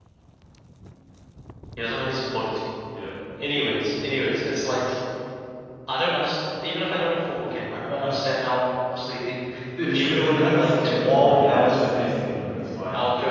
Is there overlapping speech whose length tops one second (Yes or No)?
Yes